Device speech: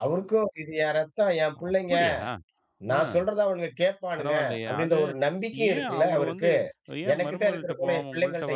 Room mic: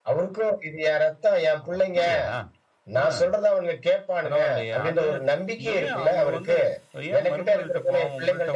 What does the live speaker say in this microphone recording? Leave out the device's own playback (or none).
none